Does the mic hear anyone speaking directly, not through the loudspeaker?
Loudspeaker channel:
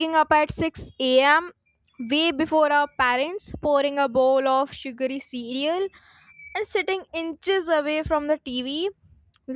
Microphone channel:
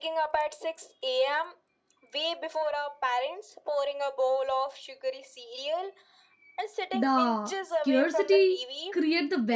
Yes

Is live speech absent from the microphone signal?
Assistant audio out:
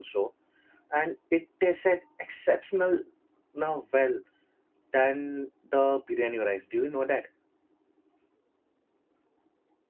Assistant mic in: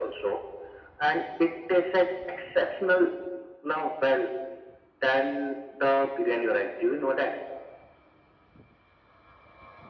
Yes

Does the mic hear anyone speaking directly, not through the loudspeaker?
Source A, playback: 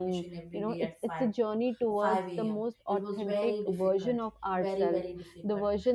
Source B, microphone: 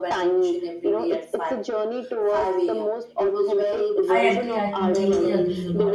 Yes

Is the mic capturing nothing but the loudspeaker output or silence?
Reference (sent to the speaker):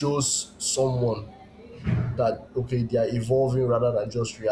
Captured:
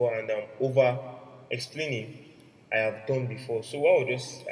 No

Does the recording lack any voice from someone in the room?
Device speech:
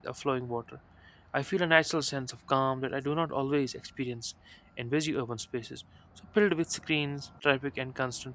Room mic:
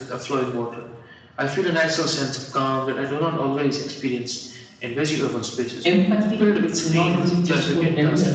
No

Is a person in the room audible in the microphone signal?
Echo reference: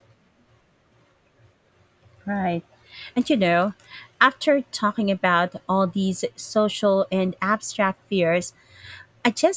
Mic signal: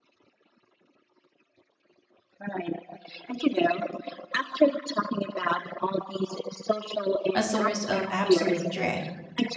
Yes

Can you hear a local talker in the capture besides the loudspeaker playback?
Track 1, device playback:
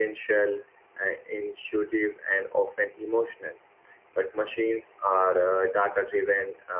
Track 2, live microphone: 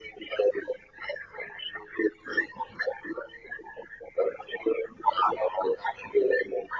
No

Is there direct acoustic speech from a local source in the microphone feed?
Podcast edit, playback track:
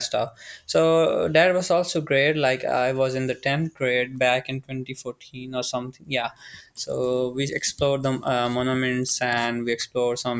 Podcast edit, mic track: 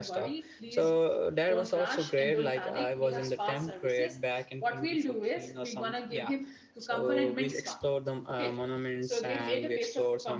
Yes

